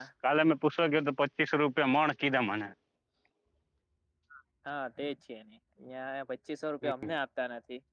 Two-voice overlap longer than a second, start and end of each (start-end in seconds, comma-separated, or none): none